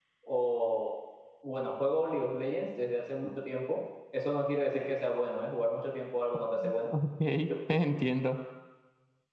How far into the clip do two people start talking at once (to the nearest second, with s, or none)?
none